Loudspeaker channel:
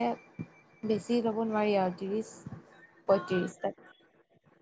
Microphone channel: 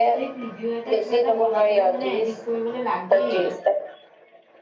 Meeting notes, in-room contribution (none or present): present